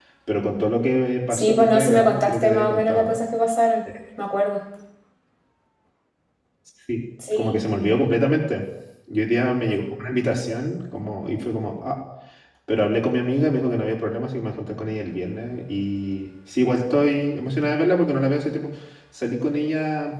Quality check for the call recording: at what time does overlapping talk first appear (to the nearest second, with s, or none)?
1 s